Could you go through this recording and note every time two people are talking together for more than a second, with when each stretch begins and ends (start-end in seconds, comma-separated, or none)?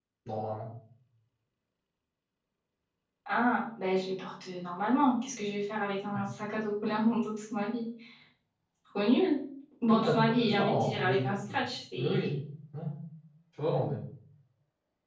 9.9-11.4